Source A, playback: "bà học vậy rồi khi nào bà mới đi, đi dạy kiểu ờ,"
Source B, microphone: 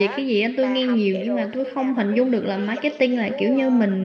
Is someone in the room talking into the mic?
Yes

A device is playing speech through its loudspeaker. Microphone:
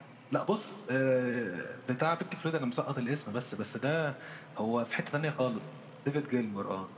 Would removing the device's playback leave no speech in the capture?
Yes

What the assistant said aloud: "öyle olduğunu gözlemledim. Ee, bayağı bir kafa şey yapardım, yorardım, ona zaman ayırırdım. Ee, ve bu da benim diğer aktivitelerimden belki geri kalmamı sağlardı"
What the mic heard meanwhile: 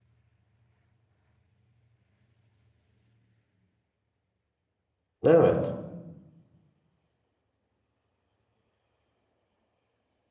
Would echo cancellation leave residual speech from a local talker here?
Yes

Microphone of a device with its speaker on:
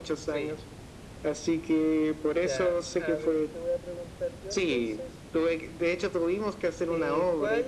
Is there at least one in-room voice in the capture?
Yes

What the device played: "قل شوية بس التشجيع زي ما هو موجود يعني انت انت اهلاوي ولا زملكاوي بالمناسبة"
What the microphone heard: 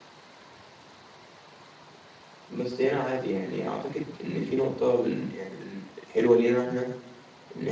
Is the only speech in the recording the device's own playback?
No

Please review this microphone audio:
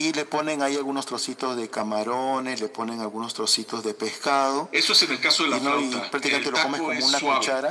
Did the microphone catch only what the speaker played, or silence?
Yes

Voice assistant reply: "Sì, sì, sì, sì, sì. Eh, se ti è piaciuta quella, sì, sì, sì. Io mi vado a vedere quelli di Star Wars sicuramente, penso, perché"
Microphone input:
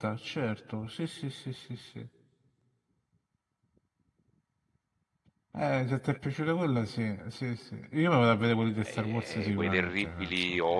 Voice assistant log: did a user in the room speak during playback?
Yes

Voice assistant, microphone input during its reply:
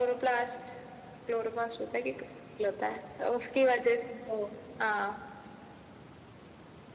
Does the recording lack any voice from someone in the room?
Yes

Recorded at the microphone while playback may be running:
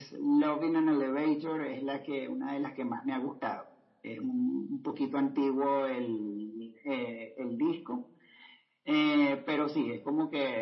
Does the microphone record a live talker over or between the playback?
No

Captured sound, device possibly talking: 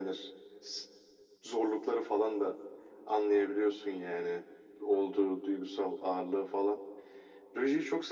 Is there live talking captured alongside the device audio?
No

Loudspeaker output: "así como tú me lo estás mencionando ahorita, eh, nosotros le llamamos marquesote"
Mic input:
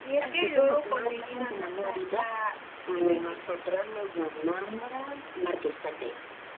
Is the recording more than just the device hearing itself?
Yes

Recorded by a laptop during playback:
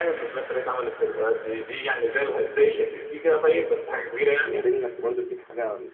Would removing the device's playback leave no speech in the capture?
No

